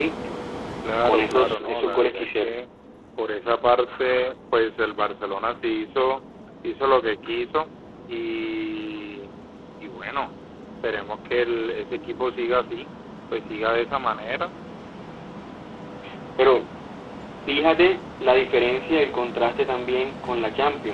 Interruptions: present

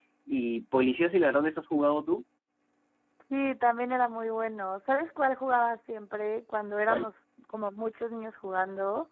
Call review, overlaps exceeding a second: none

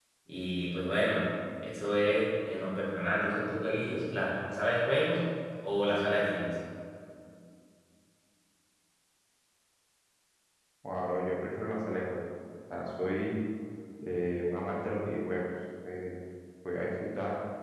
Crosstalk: none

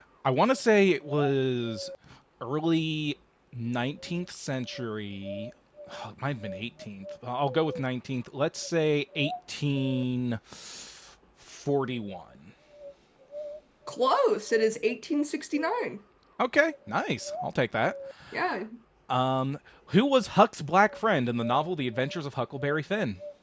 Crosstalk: none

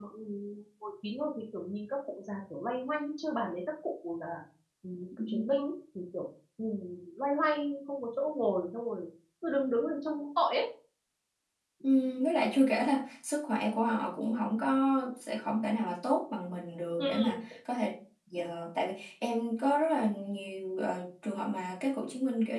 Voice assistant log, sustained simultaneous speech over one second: none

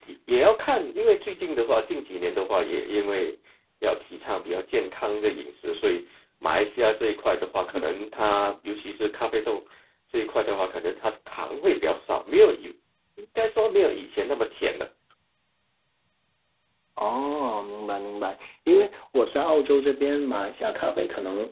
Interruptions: none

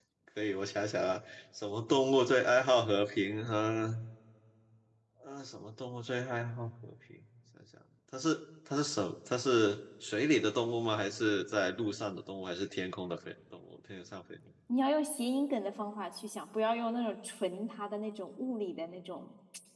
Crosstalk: none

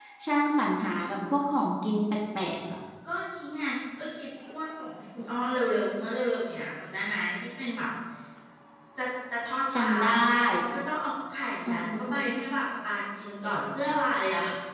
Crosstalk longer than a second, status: none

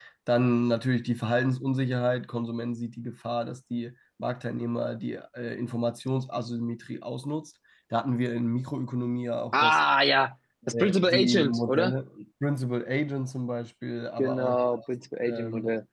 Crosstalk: present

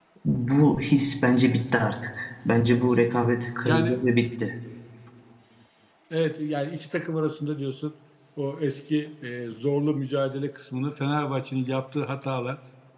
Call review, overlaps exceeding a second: none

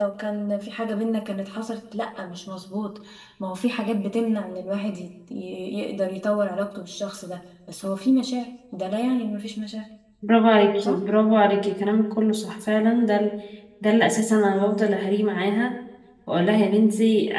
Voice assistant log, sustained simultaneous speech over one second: none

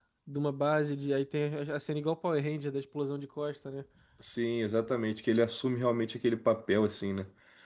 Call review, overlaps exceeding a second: none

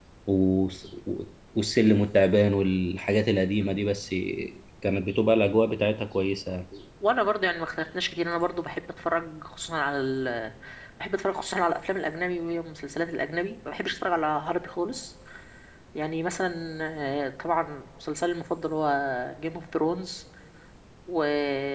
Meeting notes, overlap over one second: none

